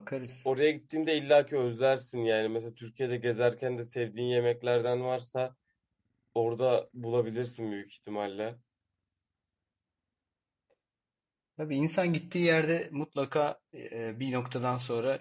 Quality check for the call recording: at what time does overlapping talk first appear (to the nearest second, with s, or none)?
none